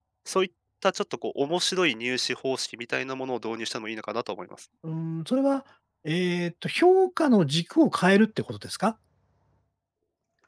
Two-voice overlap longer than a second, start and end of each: none

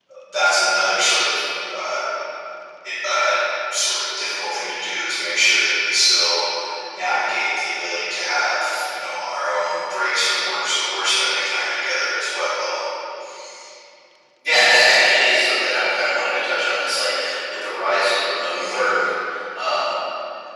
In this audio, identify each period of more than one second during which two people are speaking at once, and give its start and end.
none

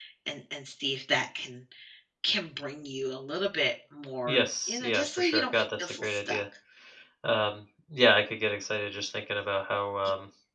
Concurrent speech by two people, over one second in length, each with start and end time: 4.3-6.4

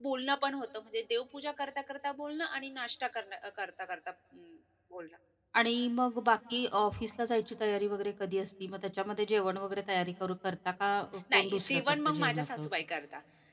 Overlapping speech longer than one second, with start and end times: 11.3-12.7

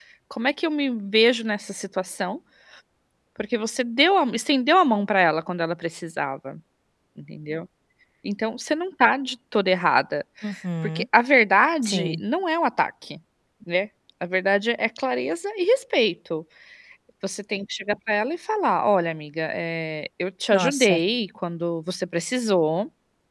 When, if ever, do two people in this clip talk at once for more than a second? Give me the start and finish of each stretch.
none

